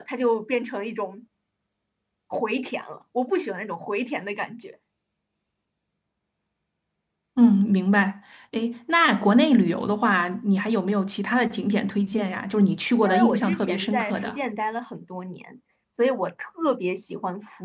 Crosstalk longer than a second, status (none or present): present